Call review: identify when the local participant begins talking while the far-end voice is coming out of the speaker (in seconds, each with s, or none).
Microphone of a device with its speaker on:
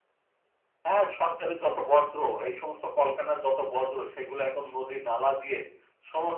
none